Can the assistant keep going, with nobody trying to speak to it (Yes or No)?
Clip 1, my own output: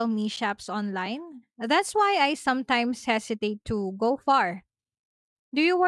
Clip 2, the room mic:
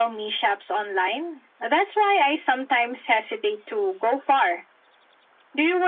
Yes